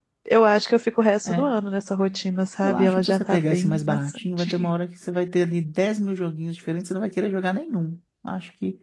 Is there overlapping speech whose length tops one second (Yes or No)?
Yes